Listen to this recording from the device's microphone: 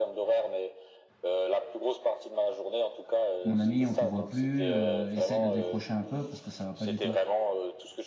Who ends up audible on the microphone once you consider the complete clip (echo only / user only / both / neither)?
both